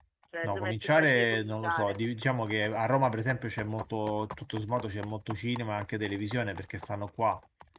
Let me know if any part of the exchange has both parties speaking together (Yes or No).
Yes